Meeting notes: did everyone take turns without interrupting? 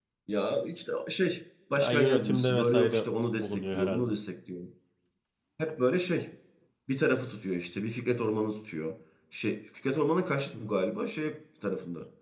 No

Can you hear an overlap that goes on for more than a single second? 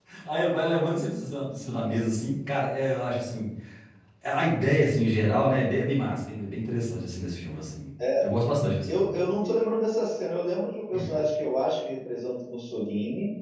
No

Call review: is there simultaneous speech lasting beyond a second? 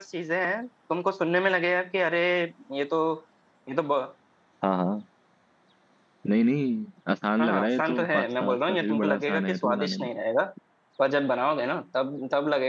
Yes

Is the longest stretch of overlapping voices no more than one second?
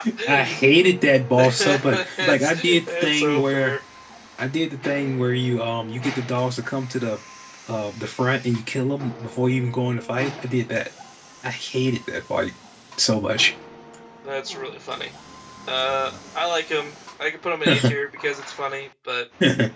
No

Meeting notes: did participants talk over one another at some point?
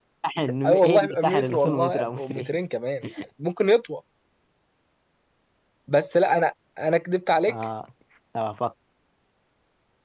Yes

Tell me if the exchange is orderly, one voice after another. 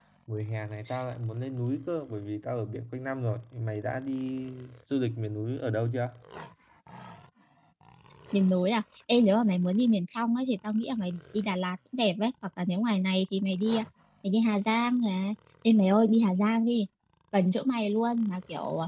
Yes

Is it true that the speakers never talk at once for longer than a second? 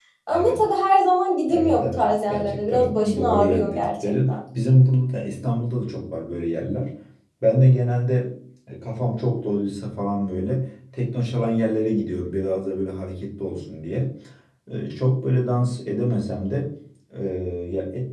No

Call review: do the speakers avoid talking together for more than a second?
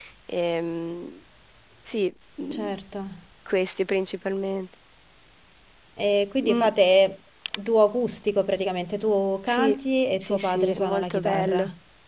No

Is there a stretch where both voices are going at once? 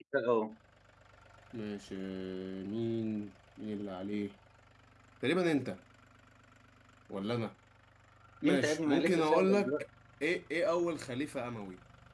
Yes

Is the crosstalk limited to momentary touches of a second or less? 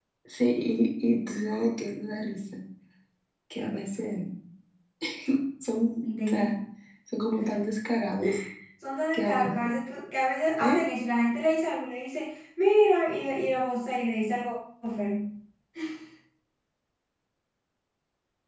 Yes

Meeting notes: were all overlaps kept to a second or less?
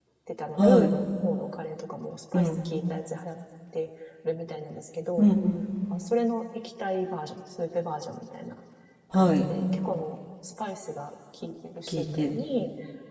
Yes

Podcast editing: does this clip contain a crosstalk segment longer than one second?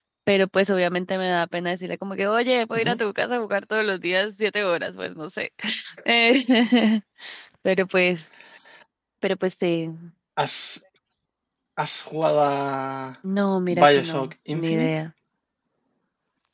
Yes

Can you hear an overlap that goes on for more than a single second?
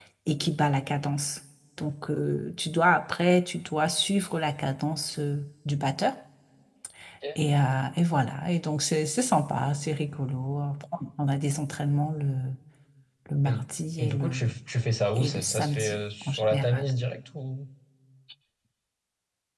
Yes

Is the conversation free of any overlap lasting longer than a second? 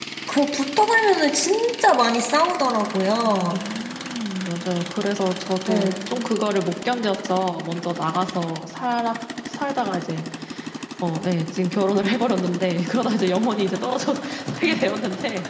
Yes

